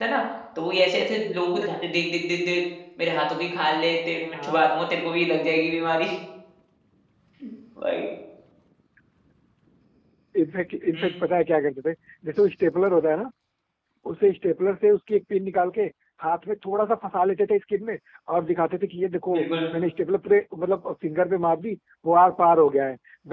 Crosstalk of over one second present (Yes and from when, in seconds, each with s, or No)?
No